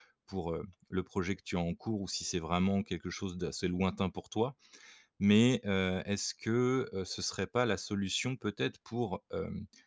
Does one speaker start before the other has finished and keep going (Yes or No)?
No